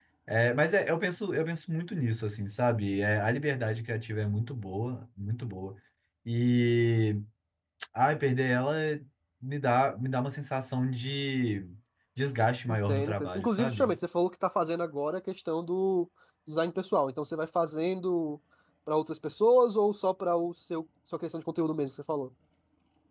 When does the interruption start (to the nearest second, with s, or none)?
13 s